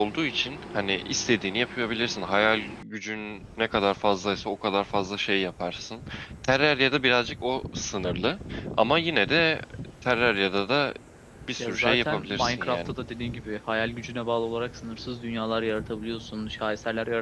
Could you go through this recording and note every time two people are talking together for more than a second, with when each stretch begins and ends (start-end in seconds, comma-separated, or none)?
11.6-12.9